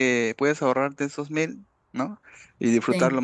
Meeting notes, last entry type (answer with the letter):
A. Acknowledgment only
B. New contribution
A